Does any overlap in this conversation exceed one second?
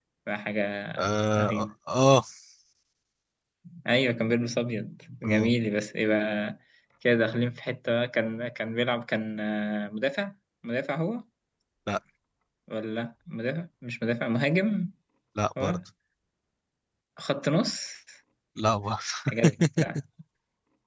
No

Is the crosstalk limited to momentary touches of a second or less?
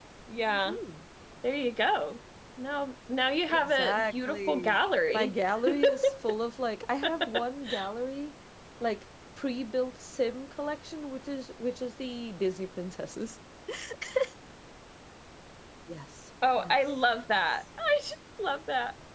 No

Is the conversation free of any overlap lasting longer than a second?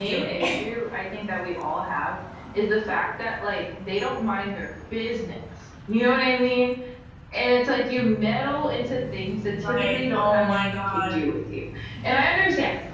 No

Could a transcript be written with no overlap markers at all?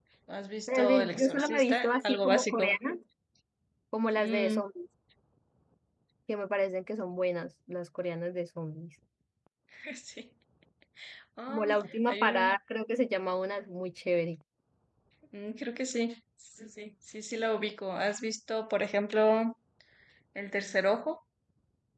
No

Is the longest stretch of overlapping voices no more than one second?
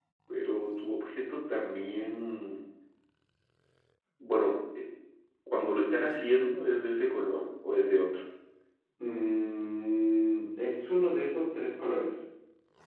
Yes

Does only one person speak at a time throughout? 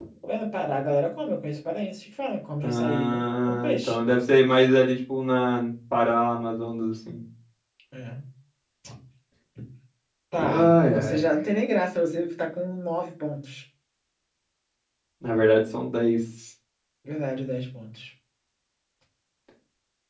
No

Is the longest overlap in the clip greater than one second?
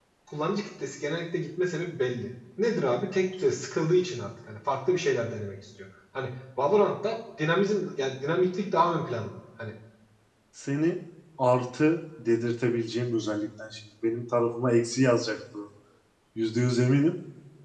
No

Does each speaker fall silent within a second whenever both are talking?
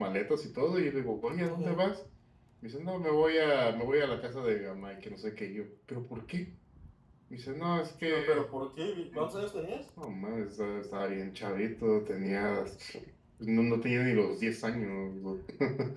Yes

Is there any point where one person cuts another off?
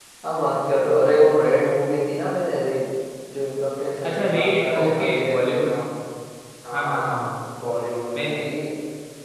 Yes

